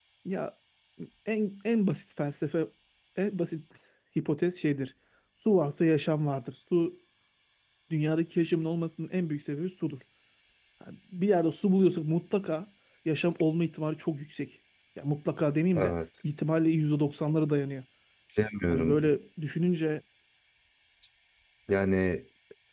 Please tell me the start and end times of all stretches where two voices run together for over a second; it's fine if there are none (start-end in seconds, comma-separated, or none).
none